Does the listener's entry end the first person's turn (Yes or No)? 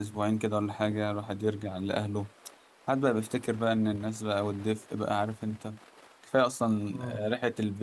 No